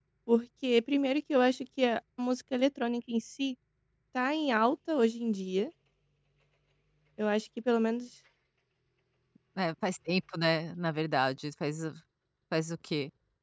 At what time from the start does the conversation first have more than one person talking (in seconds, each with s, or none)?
none